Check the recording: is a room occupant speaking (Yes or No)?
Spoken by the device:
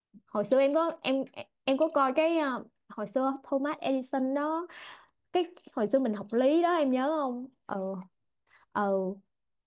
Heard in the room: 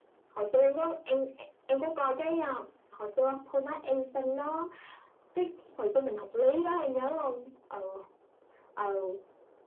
No